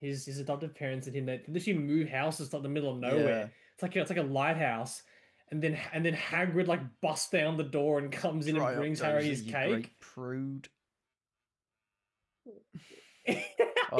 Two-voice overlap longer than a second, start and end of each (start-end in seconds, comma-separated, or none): 8.1-9.9